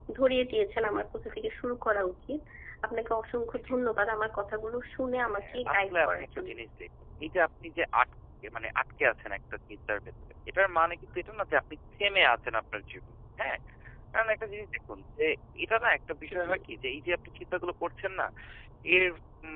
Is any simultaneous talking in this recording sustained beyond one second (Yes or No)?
Yes